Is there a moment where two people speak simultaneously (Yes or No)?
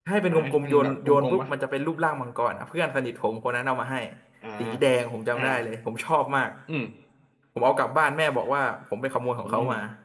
Yes